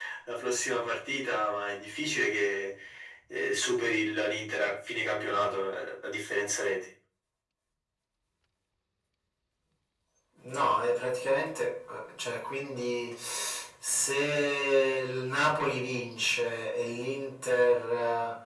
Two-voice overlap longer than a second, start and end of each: none

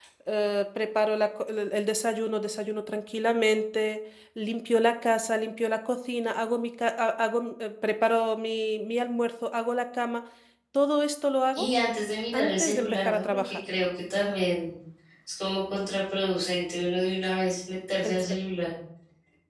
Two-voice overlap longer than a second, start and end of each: 12.3-13.6

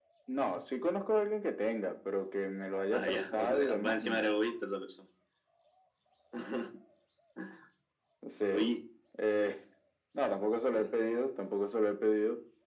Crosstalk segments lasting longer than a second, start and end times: 2.9-4.3

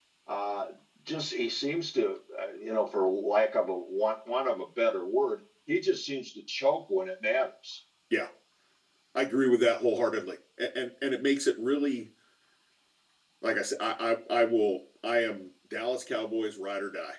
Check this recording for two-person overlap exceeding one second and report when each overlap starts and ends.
none

